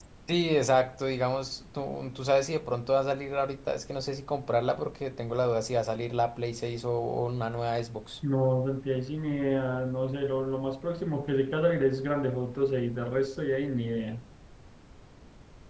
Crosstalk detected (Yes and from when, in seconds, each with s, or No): No